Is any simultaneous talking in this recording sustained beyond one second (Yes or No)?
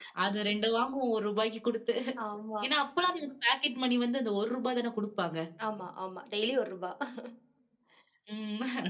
No